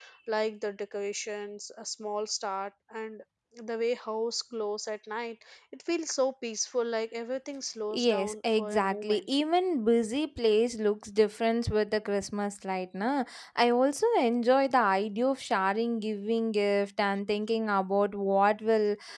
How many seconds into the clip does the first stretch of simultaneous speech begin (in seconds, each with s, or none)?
7.9 s